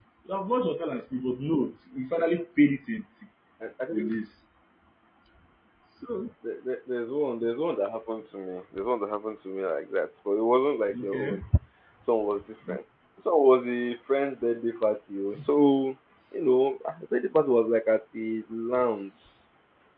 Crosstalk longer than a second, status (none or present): none